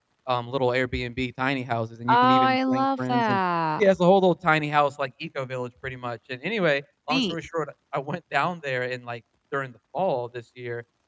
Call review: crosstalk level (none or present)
present